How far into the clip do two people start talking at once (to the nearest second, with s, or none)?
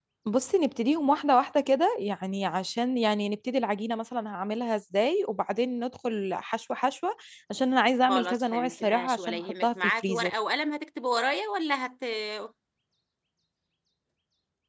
8 s